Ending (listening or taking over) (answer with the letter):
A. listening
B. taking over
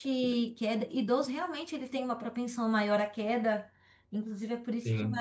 A